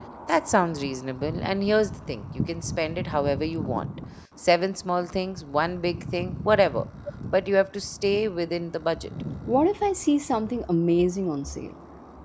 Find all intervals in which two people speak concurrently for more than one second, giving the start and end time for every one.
none

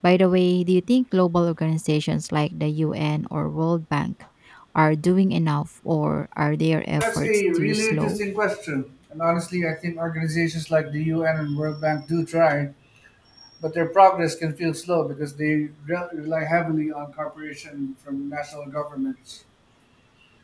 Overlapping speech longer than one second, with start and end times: 7.0-8.2

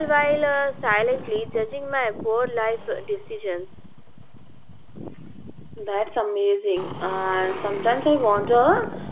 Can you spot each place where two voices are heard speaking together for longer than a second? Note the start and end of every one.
none

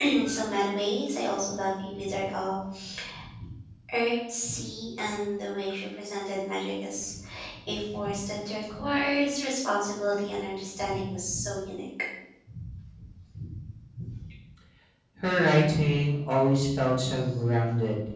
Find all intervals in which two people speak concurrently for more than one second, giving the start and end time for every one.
none

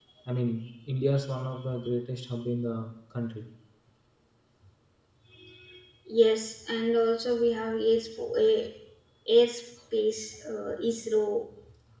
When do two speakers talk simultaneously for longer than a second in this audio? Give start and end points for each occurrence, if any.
none

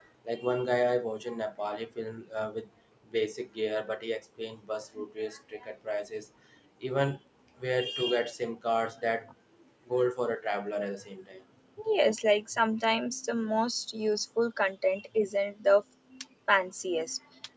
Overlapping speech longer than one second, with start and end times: none

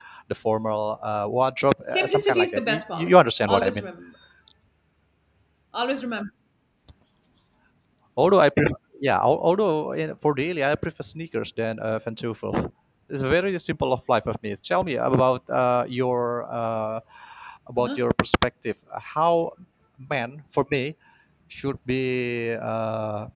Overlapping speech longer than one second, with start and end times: 1.8-3.9

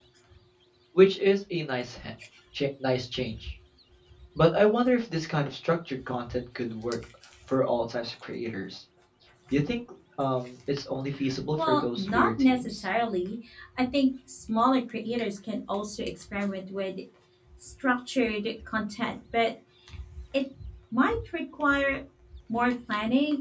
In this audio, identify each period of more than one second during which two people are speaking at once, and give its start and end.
11.6-12.8

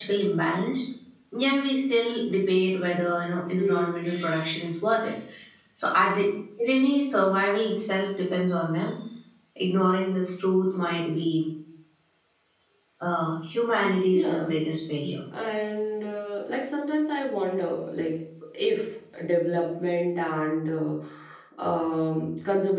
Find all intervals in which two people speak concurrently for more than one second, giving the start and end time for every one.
none

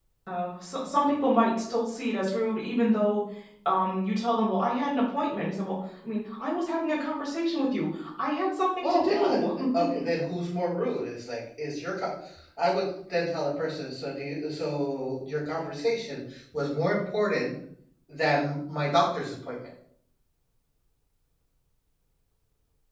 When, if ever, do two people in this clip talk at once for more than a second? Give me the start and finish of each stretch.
8.8-10.0

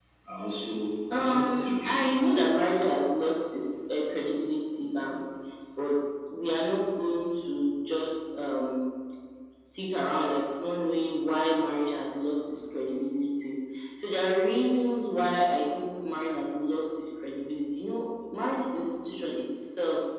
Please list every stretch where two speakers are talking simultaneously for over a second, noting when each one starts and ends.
1.1-2.6

